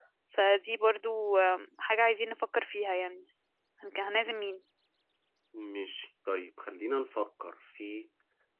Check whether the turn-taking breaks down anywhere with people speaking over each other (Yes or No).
No